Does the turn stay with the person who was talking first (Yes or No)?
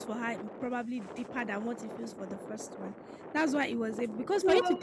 Yes